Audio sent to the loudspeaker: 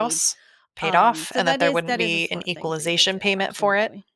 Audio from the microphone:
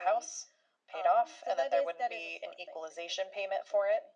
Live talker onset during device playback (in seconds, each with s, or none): none